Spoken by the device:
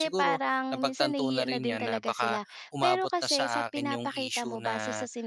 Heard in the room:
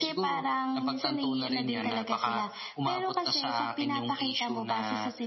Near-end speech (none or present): none